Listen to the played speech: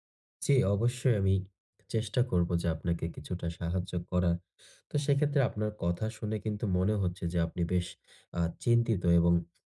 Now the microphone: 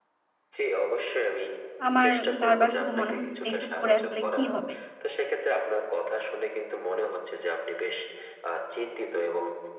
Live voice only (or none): আমার বার, বার শুধু মনে হচ্ছে যে এসব করে আসলে কি হবে?